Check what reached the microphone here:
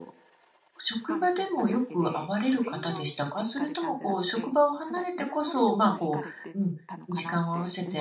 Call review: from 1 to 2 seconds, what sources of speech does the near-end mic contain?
both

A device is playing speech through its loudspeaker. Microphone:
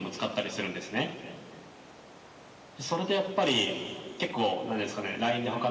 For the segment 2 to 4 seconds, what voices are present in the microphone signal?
echo only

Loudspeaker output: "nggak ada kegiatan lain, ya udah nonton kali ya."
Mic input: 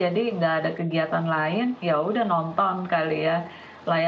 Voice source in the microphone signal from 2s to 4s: echo only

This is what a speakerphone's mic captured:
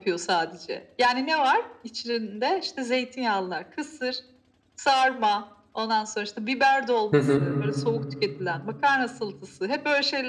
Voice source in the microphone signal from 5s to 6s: echo only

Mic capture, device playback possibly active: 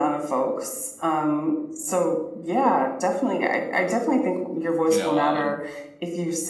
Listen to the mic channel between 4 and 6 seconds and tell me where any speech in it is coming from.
both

